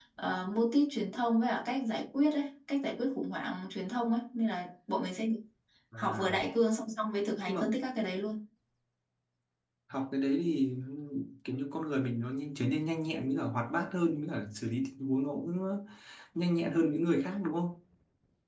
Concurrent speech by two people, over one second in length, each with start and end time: none

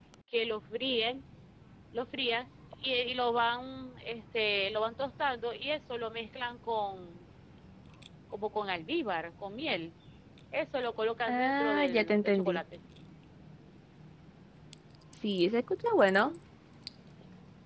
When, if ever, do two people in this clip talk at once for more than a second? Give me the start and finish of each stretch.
11.3-12.6

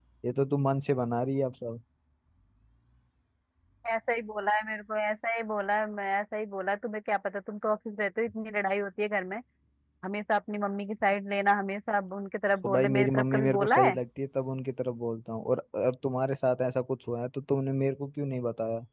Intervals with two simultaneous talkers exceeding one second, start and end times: 12.6-14.0

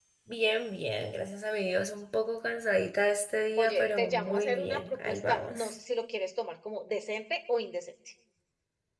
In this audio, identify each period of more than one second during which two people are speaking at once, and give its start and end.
3.6-5.5

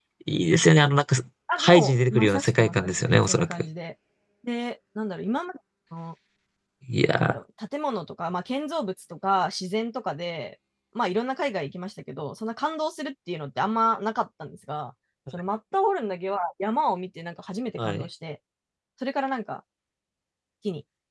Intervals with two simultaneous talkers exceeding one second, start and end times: 1.6-3.5

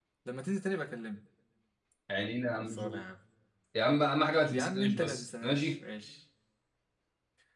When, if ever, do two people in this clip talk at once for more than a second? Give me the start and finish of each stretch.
4.5-5.8

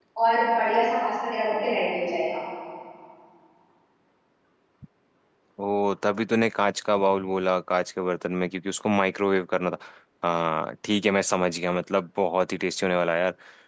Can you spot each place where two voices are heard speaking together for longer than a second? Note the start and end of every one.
none

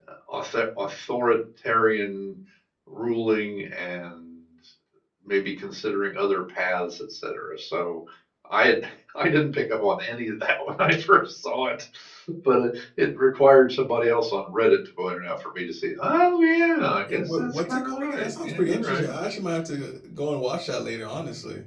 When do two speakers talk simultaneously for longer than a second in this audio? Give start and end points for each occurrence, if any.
17.1-19.1

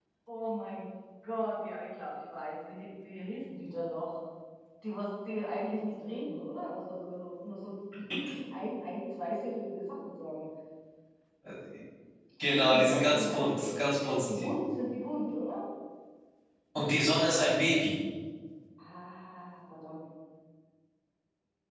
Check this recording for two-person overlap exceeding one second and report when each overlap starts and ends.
12.4-13.8

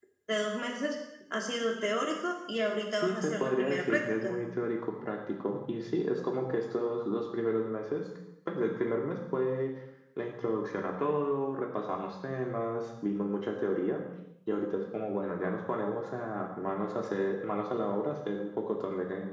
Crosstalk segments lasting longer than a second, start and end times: 3.0-4.3

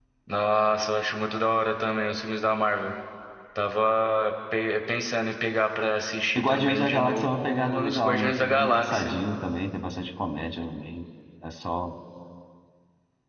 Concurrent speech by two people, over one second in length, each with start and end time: 6.3-9.2

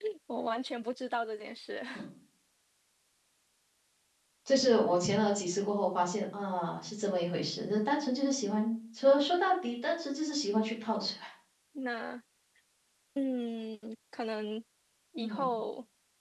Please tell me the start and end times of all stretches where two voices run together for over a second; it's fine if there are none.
none

